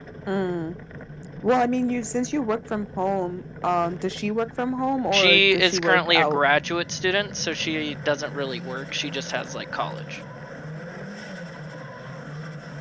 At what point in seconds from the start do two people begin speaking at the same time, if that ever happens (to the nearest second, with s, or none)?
5 s